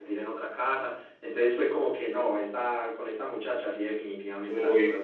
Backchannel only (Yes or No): No